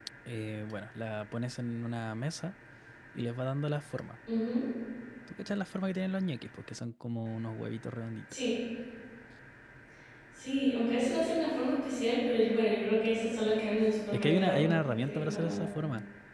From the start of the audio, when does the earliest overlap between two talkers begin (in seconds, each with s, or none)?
14.1 s